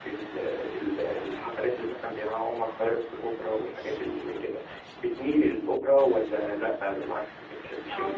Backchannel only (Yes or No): No